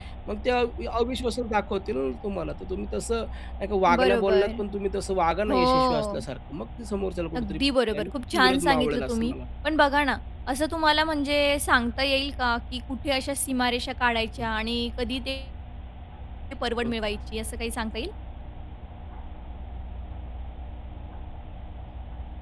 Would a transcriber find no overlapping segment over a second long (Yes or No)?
No